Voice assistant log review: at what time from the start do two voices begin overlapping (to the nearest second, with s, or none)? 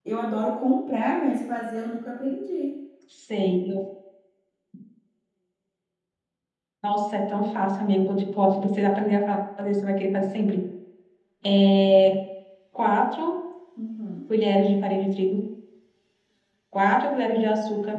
none